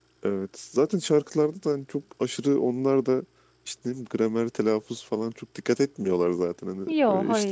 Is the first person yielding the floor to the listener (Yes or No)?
No